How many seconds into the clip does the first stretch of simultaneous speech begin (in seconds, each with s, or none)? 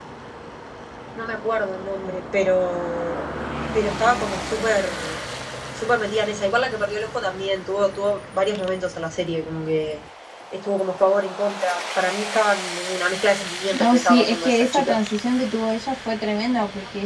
13.7 s